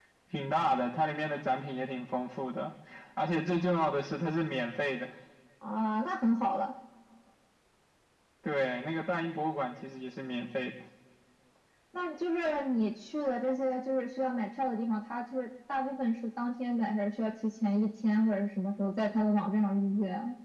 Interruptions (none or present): none